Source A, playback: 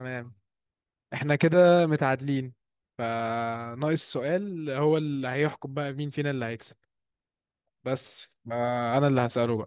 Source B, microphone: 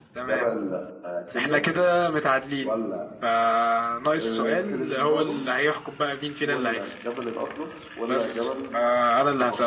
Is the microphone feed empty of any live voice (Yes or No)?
No